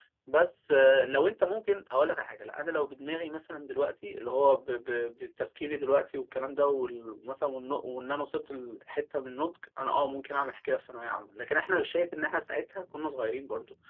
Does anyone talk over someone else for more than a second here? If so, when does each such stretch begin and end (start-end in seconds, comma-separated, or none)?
none